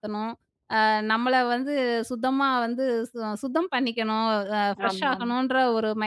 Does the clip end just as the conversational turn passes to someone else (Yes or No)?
No